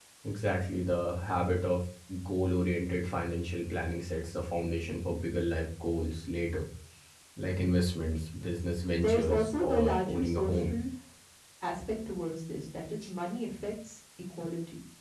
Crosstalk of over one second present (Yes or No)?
Yes